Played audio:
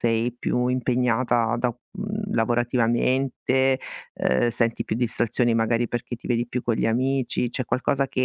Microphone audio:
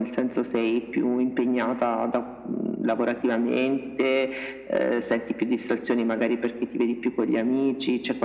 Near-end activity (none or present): none